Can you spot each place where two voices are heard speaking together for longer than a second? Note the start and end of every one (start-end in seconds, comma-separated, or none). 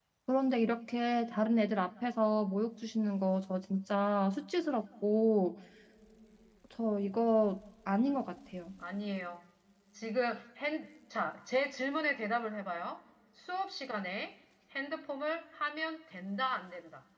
none